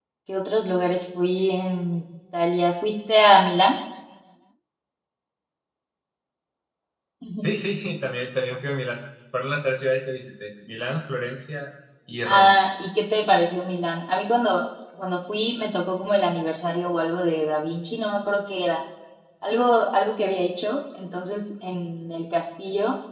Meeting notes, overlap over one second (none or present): none